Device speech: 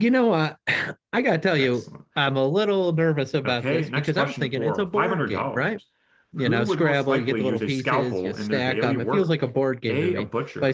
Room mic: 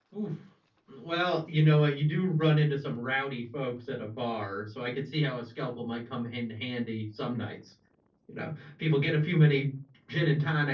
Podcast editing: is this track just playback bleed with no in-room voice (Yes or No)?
No